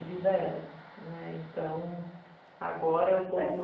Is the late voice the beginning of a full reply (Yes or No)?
No